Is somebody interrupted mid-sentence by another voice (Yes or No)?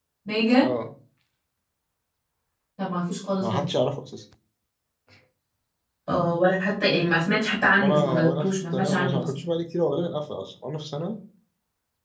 Yes